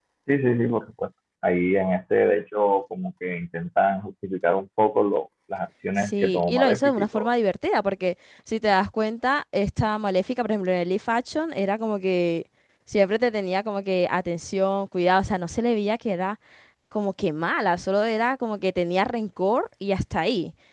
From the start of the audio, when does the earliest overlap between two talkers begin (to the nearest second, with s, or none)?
6 s